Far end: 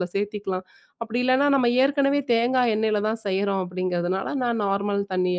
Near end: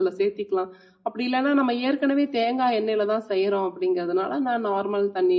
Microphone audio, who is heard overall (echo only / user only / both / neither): echo only